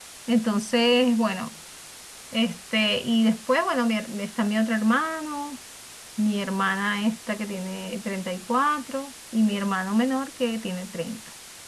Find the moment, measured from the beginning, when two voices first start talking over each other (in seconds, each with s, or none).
none